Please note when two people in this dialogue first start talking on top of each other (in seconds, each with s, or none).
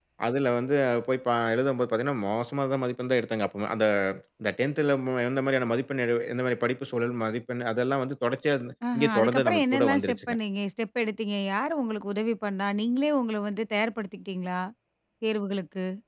8.8 s